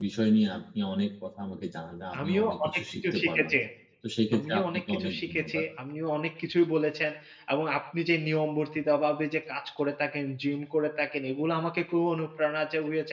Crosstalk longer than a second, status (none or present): present